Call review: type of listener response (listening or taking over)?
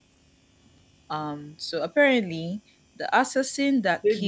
taking over